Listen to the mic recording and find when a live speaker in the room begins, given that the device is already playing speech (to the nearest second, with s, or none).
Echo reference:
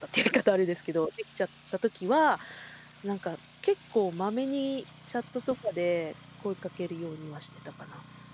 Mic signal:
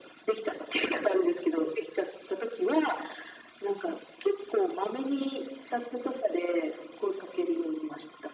none